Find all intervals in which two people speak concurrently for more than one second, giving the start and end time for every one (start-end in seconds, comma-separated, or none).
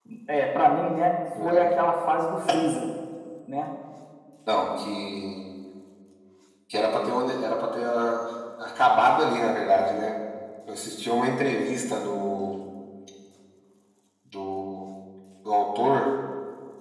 none